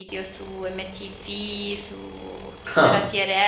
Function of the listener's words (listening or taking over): listening